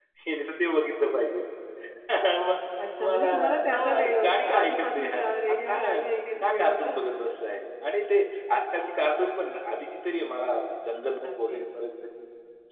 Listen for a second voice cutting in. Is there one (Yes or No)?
Yes